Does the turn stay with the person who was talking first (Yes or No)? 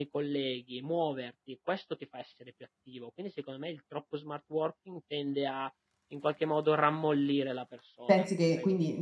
No